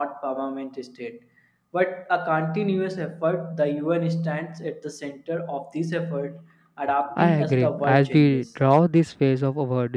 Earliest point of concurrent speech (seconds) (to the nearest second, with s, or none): 7 s